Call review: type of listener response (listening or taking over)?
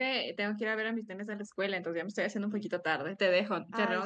taking over